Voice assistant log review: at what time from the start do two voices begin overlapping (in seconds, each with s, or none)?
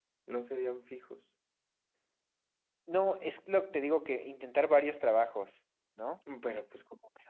none